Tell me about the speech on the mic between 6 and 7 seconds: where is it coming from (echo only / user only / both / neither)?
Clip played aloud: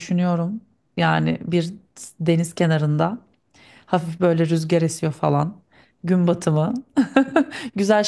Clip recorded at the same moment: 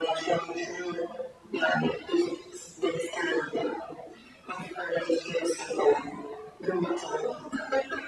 echo only